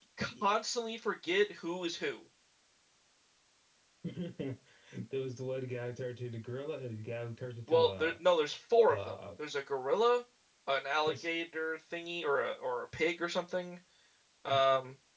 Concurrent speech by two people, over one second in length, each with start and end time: none

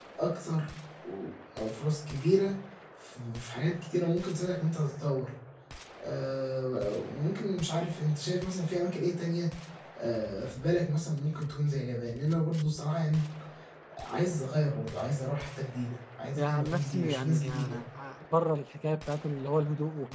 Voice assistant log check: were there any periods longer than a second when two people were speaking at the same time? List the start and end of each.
16.3-17.8

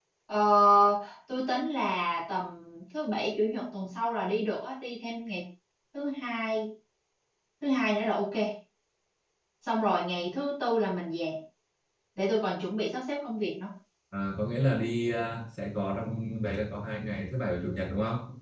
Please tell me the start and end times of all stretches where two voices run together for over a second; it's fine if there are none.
none

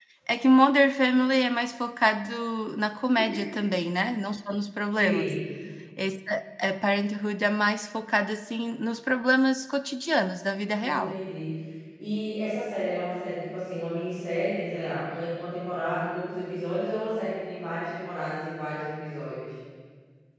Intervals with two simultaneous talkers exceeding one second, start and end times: none

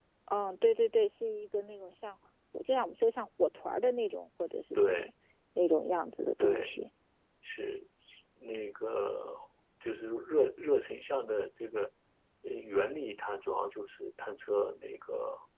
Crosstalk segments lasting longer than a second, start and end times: none

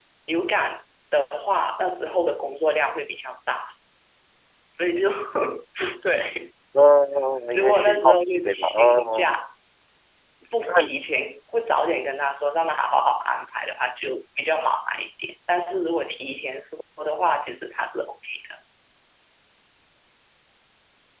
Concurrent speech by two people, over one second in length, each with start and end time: 7.5-9.4

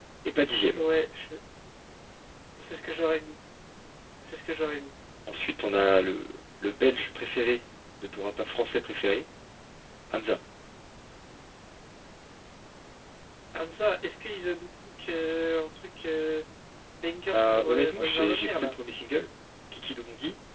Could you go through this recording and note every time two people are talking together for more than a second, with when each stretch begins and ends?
17.3-18.7

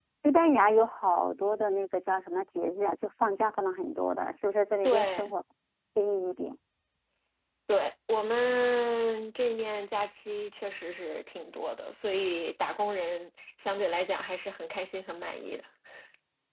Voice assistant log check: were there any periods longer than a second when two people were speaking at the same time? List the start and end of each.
none

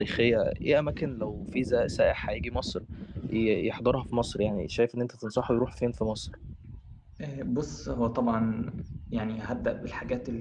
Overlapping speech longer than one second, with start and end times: none

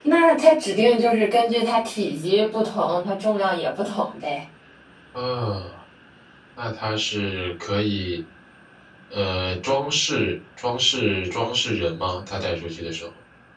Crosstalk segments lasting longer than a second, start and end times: none

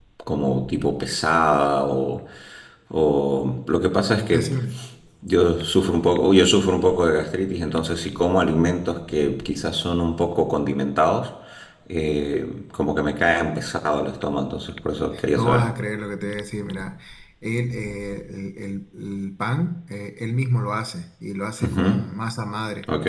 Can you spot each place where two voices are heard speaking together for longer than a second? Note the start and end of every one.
none

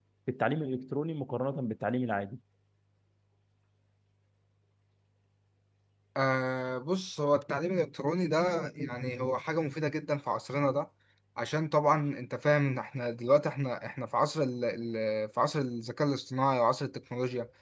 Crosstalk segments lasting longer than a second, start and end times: none

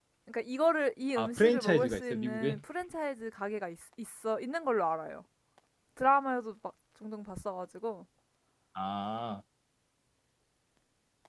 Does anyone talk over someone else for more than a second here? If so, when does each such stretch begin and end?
1.1-2.6

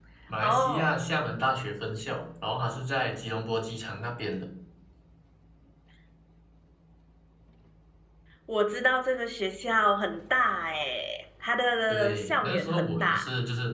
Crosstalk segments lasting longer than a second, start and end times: 11.9-13.2

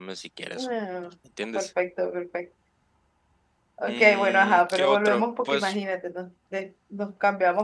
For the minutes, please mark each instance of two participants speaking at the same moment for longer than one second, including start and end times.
3.9-5.8

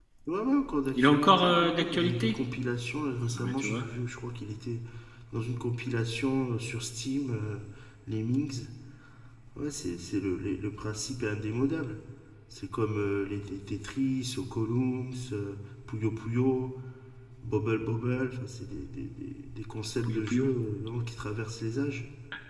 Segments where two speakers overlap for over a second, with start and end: 1.0-2.4

